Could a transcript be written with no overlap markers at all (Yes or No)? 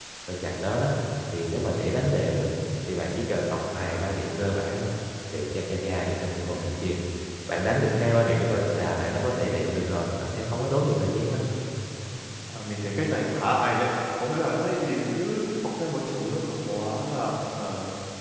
Yes